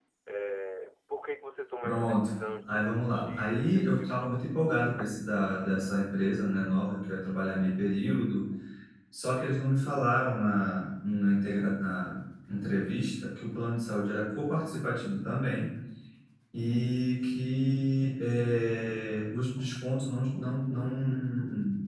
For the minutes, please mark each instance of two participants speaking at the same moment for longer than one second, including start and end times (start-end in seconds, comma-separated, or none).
1.8-4.4